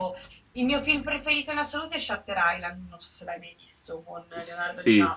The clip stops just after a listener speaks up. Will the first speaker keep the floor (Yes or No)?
No